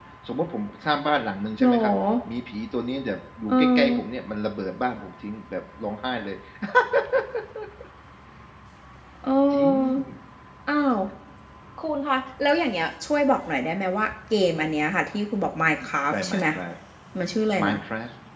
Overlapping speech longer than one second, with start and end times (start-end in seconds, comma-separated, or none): none